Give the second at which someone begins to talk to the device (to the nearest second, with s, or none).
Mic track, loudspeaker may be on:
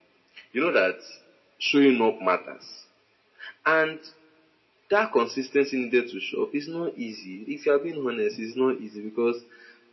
none